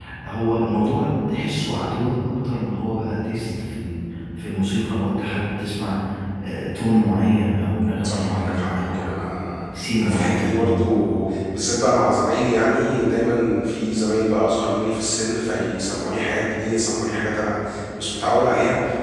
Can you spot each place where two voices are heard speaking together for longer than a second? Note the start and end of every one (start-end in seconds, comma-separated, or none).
8.0-9.4